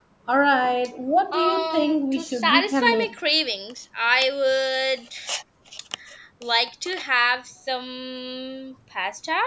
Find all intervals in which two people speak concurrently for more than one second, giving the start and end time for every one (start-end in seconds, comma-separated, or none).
1.3-3.1